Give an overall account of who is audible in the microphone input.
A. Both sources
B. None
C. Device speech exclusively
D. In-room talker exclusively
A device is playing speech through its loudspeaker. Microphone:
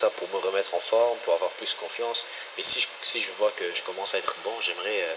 C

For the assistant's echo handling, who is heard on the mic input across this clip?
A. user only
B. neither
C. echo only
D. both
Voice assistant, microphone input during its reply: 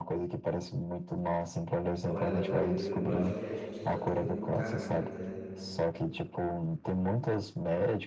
D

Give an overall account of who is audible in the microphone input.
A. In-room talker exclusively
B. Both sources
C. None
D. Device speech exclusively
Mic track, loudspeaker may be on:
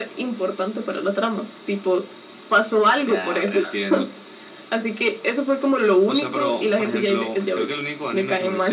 D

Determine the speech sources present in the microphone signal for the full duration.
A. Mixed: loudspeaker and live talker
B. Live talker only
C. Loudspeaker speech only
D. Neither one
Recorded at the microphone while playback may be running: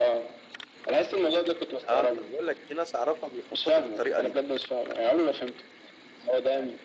A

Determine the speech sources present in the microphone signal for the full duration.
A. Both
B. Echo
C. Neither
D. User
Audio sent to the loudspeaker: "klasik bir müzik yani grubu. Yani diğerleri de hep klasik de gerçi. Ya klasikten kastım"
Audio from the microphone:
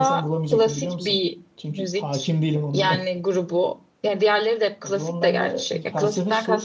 A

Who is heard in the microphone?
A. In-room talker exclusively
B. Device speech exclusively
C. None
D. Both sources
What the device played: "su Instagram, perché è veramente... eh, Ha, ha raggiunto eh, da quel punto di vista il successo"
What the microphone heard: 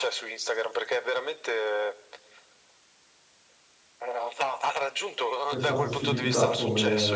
D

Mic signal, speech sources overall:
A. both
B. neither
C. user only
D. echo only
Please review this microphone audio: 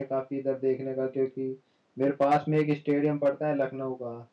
C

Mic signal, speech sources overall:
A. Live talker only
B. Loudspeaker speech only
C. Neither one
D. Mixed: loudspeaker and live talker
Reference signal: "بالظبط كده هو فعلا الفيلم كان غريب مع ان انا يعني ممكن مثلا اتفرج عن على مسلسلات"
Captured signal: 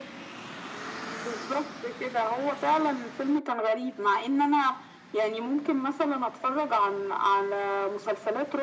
B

